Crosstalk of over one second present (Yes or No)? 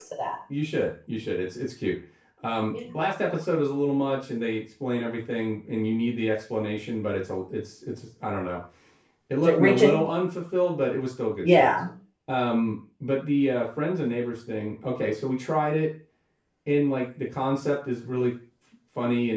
No